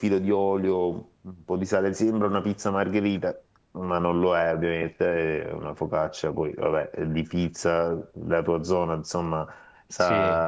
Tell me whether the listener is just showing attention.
Yes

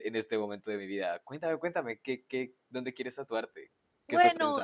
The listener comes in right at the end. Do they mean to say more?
Yes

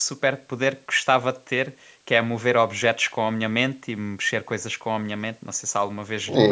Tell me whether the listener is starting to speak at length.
Yes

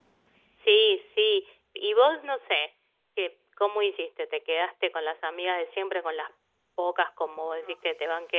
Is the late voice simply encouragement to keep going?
Yes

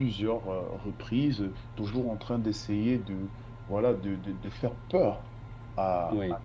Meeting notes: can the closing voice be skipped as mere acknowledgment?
Yes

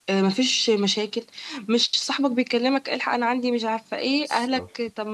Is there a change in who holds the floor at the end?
No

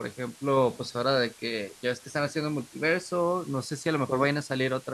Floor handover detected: No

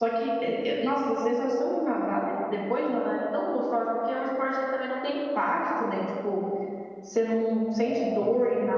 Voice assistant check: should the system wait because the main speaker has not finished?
Yes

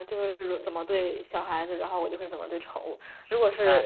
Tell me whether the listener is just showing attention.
Yes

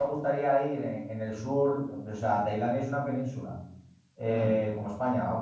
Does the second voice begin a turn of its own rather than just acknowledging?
No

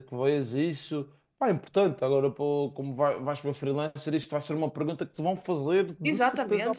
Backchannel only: No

